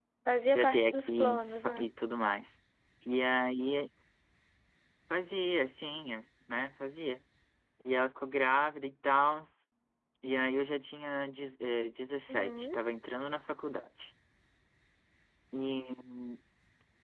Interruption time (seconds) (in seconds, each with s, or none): 0.6 s